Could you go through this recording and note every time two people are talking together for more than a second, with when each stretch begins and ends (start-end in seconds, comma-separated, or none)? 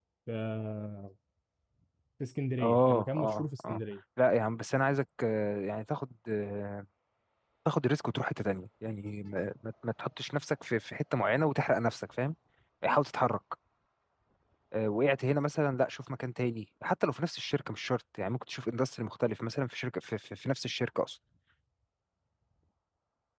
2.6-3.8